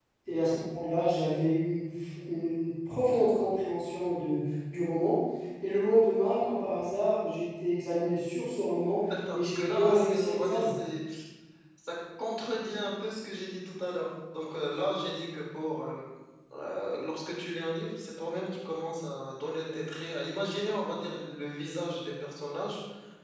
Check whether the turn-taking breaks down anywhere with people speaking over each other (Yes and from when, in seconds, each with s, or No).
Yes, from 9.3 s